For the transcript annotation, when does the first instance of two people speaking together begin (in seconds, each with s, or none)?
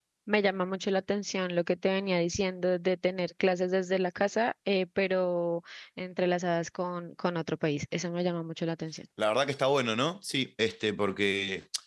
none